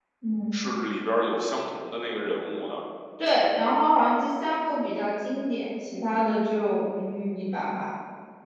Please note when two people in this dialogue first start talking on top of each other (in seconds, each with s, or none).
none